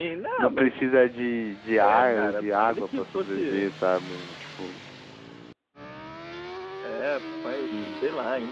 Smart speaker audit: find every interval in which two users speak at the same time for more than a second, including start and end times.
1.8-3.7

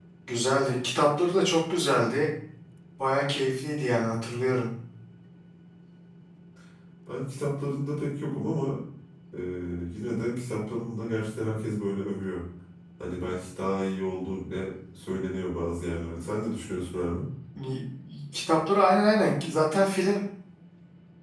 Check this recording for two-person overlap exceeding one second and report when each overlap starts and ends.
none

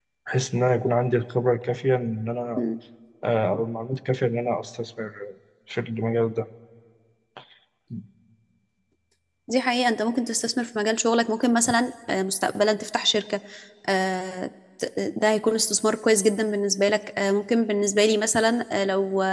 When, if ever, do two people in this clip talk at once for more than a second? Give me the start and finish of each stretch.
none

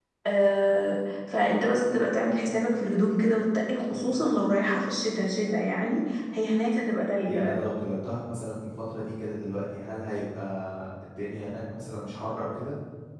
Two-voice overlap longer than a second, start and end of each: none

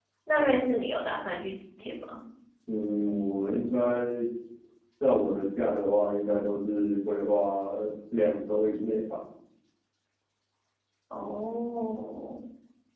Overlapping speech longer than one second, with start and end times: none

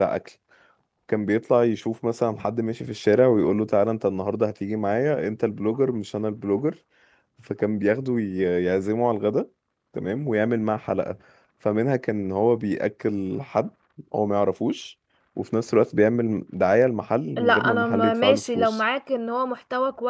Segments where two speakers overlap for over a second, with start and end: 17.4-18.8

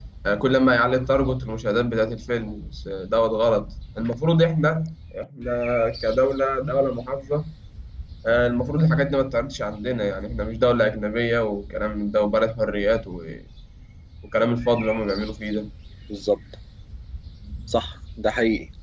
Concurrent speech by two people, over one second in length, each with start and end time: none

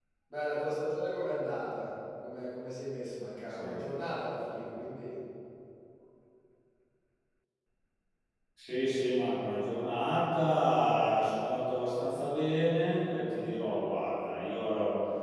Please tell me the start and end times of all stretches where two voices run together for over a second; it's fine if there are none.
none

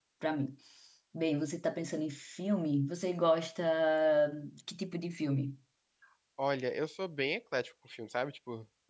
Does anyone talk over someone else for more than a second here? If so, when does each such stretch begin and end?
none

